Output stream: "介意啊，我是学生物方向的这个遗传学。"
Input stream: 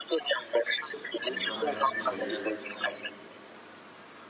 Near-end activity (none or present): present